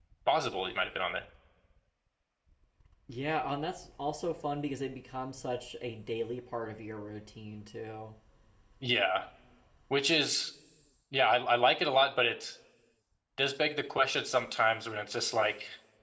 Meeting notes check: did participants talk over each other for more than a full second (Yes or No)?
No